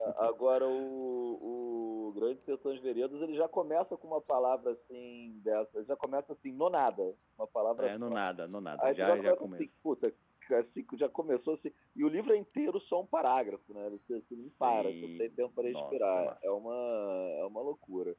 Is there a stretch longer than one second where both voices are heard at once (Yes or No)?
Yes